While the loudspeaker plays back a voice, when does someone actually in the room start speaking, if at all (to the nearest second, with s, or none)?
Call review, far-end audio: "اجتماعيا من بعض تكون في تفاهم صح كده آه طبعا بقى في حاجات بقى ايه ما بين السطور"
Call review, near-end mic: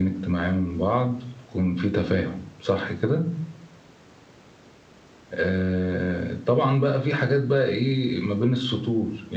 none